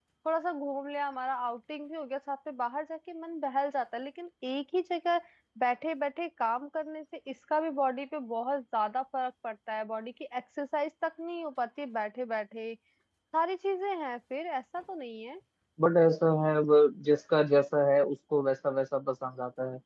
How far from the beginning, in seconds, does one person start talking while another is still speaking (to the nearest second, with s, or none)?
none